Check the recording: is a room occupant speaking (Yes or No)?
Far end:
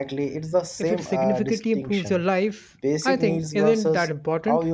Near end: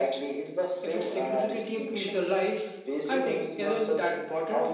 No